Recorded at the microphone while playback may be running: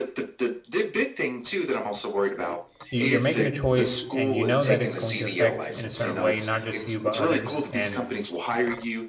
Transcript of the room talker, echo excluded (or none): you- you're making a choice and you know that it's going to affect in a certain way not just you but others and